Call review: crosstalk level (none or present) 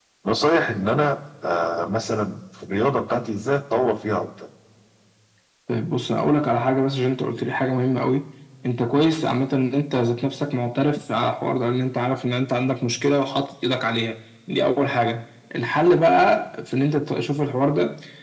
none